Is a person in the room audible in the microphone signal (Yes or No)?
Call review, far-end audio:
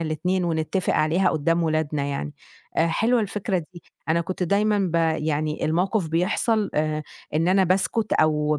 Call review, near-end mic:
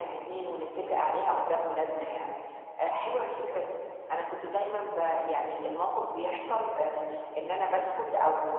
No